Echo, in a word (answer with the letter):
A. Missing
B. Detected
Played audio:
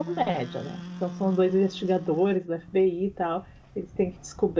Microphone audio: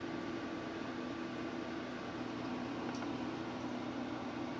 A